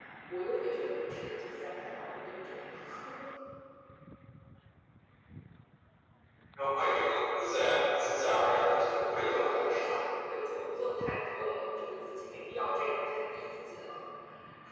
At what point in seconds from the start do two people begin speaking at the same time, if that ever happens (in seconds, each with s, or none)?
8.0 s